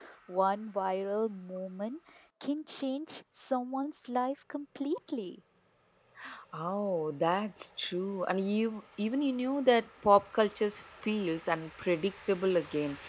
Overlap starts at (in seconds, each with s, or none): none